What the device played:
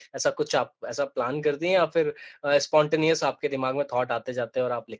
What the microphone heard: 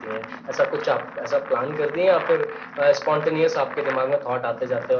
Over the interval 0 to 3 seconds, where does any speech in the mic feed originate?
echo only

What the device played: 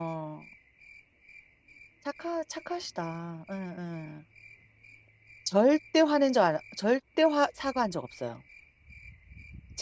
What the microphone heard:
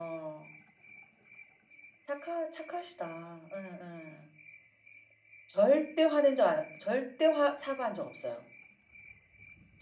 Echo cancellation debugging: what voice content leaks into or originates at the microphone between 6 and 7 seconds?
echo only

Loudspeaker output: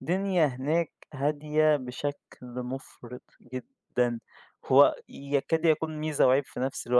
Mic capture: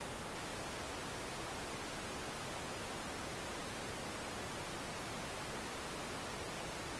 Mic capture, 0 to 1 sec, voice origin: neither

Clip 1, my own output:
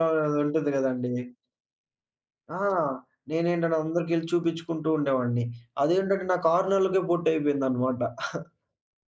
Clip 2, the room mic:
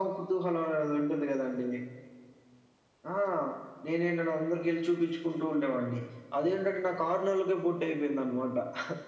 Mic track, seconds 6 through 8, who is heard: echo only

